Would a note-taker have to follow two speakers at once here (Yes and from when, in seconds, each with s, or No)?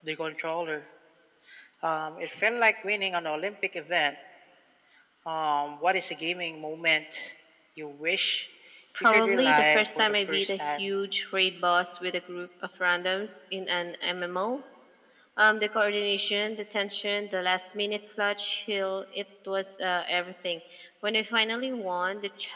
Yes, from 9.0 s